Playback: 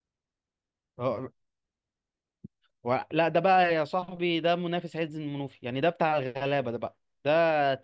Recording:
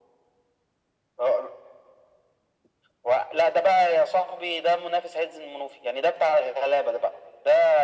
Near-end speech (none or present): none